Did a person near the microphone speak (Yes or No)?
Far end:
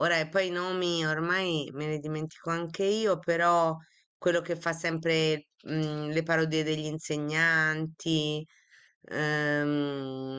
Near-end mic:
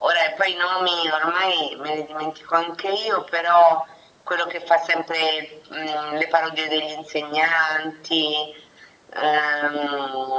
No